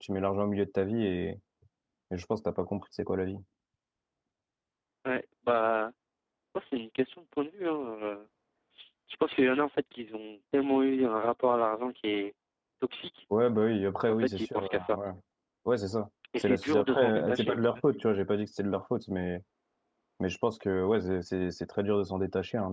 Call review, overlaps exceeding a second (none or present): present